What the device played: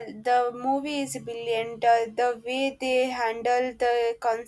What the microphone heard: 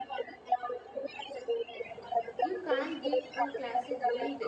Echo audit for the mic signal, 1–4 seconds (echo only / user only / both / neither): both